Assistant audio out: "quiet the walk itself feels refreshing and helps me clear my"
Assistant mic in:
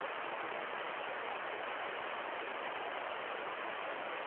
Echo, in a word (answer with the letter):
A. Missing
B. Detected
A